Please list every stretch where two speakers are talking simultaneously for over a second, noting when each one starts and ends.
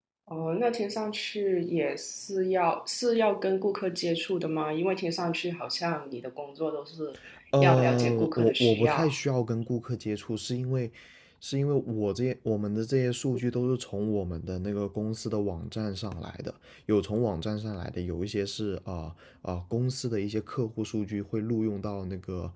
7.6-9.1

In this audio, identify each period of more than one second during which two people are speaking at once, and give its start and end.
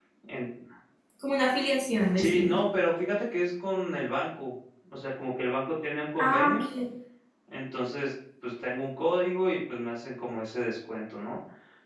none

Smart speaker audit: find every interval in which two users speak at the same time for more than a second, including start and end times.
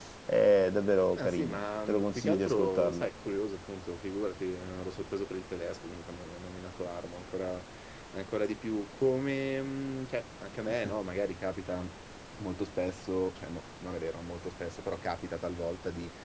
1.1-3.1

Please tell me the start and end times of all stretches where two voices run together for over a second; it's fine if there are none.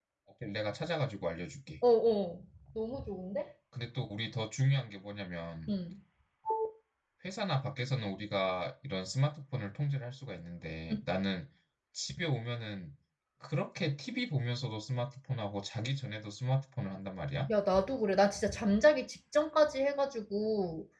none

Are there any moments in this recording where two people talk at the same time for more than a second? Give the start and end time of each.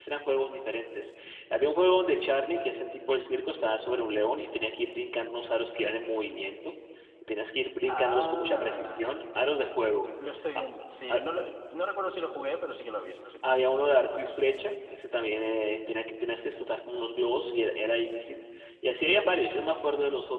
7.8-9.4

